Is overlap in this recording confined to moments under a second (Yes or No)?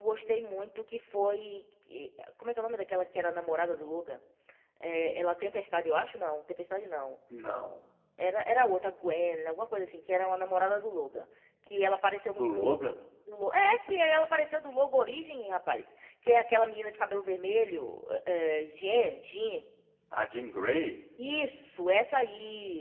Yes